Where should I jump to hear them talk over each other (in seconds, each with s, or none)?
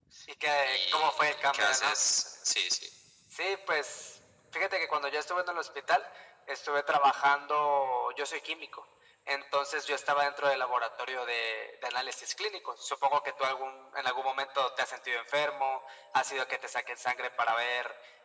0.6 s